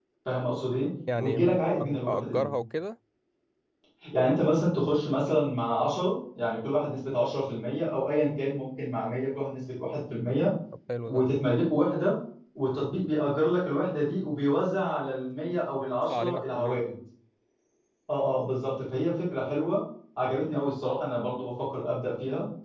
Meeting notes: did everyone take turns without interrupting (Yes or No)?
No